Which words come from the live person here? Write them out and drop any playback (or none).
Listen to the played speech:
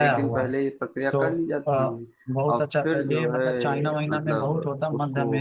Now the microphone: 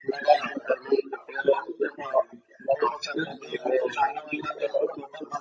none